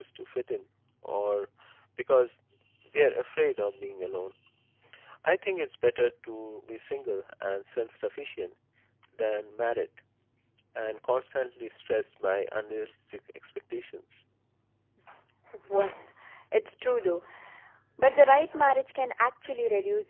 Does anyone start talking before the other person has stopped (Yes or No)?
No